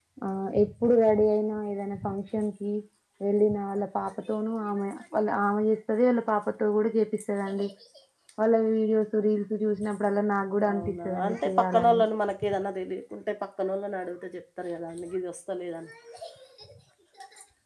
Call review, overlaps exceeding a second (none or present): present